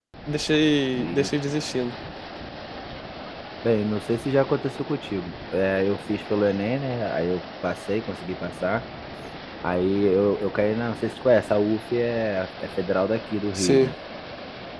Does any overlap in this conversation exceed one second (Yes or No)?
No